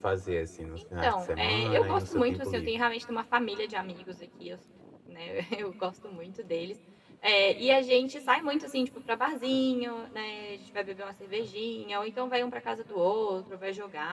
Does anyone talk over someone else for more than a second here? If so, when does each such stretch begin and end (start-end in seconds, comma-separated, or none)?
1.0-2.7